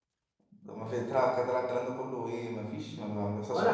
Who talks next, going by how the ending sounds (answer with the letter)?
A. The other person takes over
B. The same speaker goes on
A